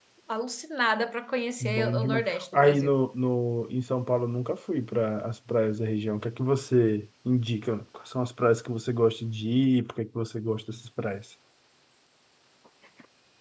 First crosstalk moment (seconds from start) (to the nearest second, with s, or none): 2 s